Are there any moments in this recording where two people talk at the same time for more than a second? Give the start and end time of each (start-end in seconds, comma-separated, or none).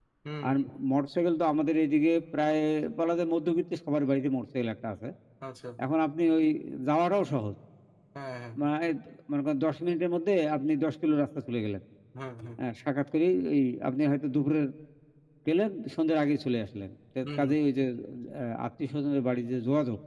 none